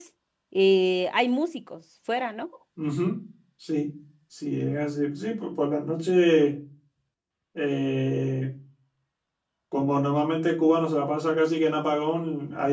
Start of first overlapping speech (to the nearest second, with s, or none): none